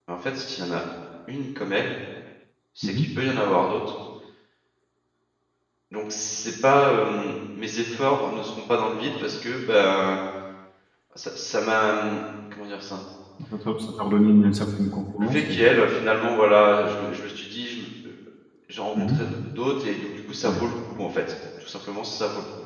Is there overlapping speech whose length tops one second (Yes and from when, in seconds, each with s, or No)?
No